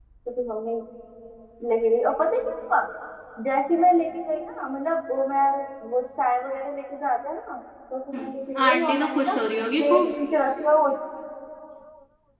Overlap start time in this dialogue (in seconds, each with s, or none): 8.1 s